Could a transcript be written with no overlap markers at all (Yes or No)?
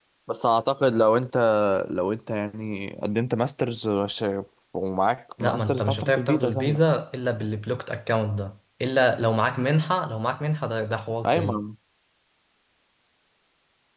No